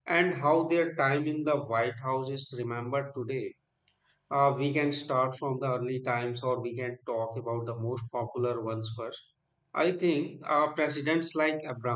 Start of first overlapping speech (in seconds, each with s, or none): none